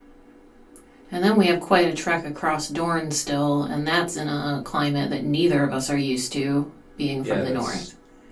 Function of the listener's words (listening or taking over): taking over